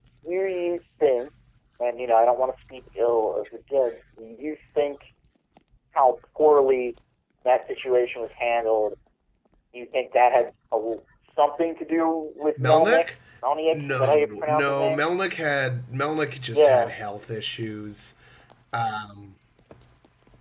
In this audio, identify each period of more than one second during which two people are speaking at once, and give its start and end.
13.7-15.1

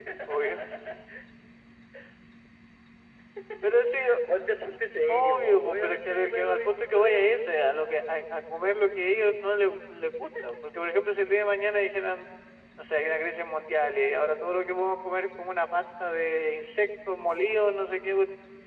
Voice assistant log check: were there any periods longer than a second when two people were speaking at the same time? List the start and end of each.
5.1-7.4

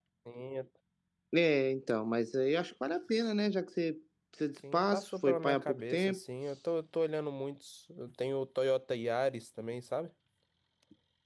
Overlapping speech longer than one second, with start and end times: 4.7-6.2

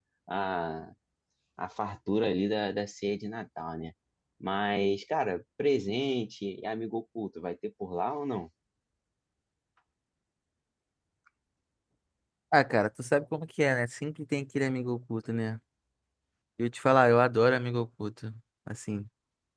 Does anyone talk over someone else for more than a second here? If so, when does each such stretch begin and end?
none

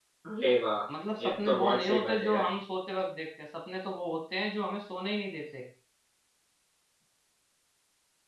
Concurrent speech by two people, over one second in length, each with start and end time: 1.2-2.4

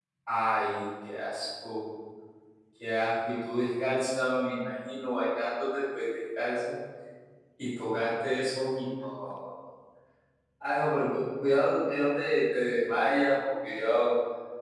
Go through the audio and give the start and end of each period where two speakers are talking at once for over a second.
none

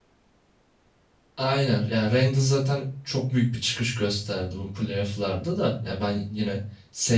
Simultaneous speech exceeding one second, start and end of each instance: none

